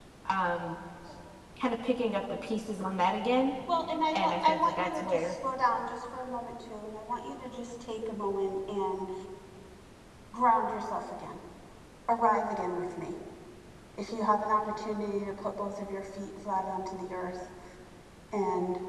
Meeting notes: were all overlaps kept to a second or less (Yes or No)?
No